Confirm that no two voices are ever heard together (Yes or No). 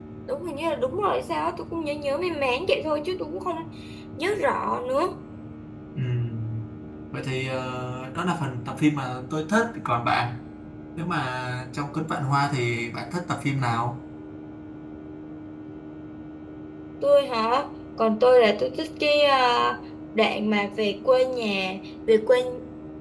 Yes